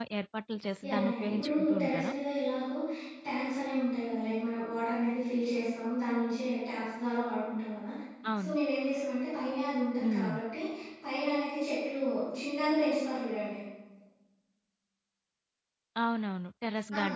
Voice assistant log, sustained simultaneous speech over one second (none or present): present